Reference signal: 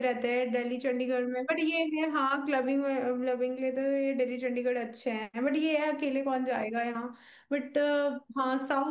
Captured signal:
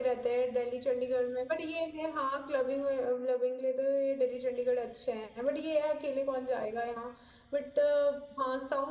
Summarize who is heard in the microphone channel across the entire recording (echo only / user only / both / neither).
echo only